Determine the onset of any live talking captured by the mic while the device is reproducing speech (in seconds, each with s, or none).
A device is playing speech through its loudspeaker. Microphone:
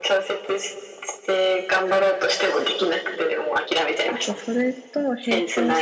4.1 s